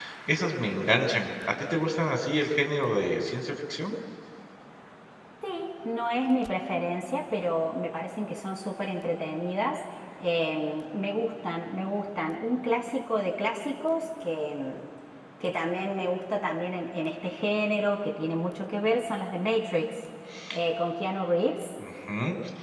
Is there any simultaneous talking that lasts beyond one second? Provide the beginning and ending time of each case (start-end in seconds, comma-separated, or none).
none